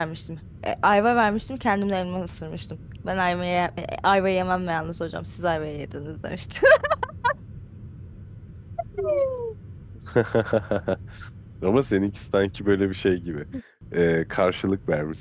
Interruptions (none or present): none